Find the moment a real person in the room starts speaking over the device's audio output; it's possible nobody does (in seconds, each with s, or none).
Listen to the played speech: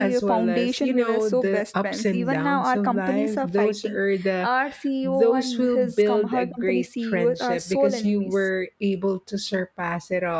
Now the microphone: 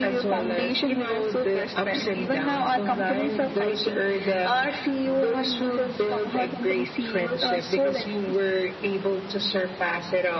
none